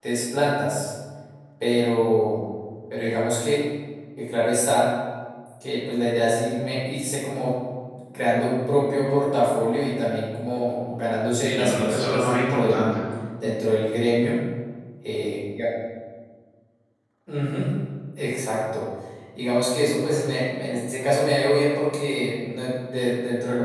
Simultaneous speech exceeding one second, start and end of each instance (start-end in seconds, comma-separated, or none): 11.4-12.9